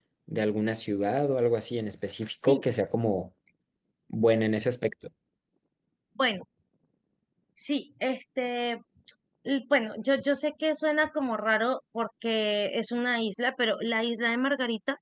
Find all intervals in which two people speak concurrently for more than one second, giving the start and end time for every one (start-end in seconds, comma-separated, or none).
none